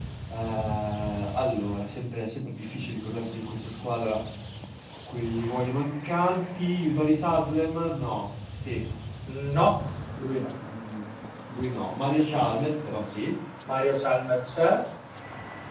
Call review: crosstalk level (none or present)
none